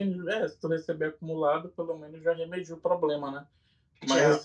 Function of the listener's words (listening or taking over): listening